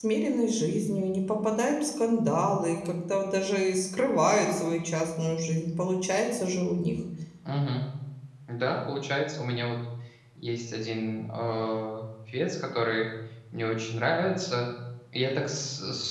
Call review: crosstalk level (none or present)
none